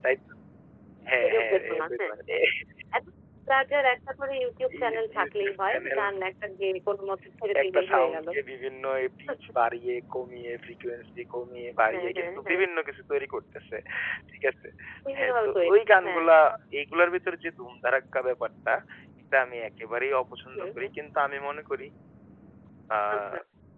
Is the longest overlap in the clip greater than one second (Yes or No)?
Yes